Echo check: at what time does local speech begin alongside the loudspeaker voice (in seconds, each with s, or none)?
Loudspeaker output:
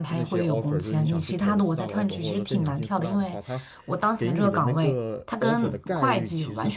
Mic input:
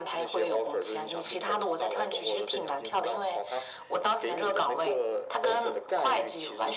none